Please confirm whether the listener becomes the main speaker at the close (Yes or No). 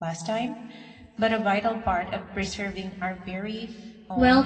Yes